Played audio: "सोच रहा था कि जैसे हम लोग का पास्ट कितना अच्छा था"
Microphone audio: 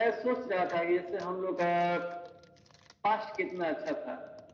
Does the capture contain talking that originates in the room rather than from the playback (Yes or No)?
No